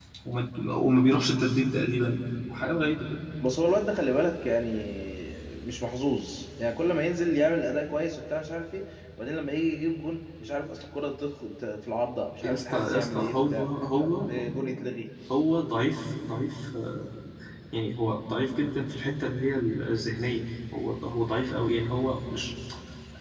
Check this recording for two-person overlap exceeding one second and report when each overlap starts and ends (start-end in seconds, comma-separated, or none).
12.4-13.7